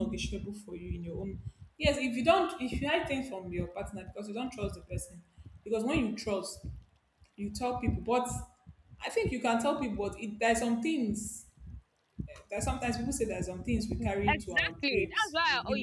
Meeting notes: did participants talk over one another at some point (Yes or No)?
Yes